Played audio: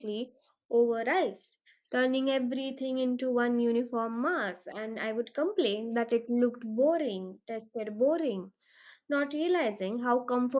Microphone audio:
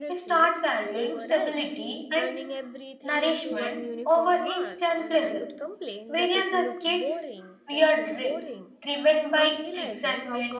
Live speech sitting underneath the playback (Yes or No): No